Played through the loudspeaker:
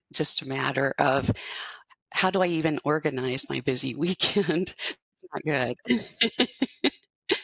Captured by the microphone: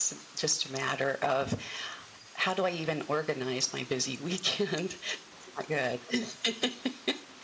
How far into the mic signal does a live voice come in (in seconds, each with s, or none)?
none